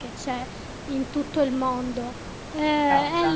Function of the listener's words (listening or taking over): listening